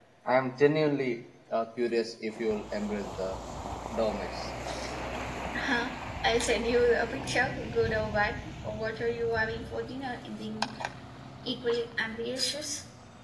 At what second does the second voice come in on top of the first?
none

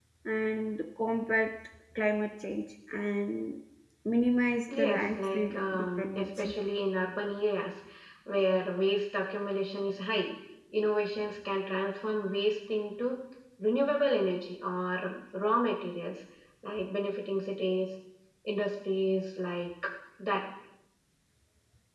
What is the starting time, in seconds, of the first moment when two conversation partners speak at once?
4.8 s

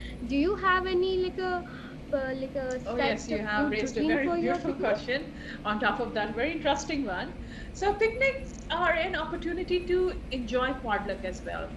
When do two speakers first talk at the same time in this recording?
2.8 s

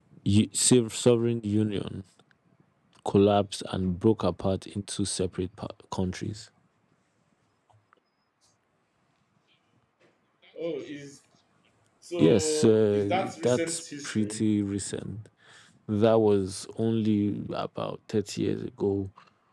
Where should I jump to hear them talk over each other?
12.2 s

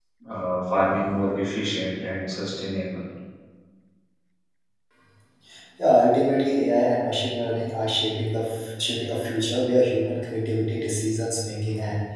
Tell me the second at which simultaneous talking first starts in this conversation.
none

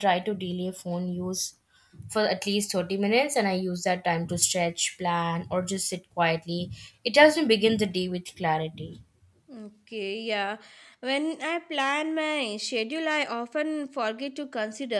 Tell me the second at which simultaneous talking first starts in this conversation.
none

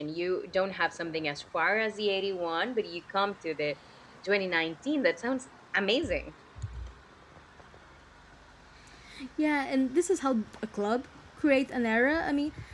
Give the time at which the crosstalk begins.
none

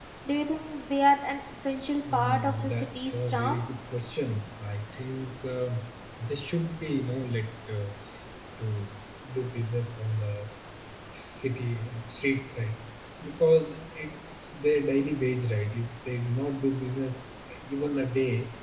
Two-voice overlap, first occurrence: 2.0 s

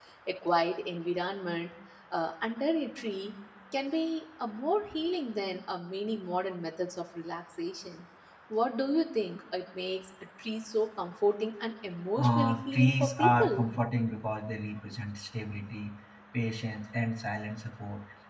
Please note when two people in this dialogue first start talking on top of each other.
12.2 s

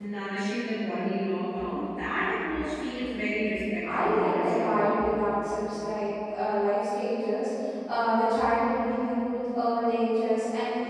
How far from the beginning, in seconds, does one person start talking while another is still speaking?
3.8 s

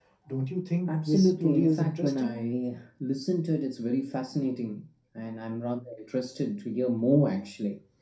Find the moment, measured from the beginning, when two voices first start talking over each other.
0.9 s

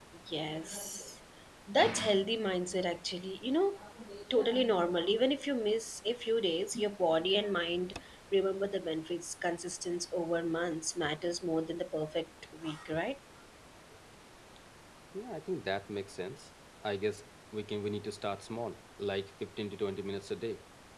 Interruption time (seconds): none

